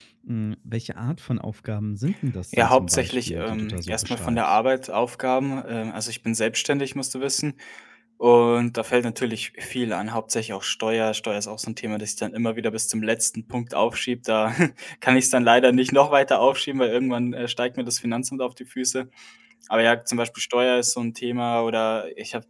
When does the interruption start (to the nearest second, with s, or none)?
3 s